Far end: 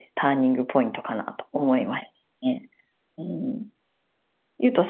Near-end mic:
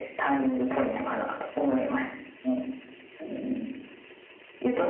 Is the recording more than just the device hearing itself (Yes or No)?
No